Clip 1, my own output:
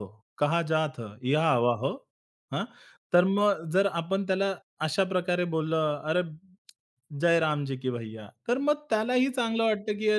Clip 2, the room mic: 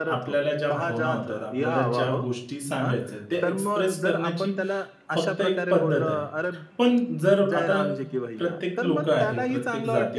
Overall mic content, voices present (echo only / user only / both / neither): both